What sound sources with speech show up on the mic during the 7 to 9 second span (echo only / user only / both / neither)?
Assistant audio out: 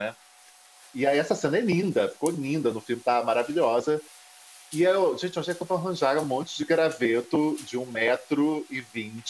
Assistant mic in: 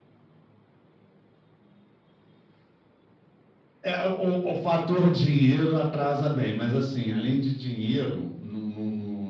user only